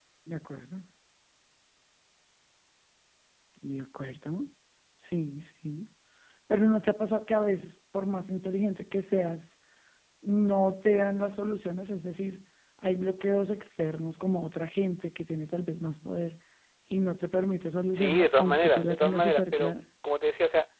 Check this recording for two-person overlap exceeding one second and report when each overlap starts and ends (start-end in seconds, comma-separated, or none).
18.0-19.7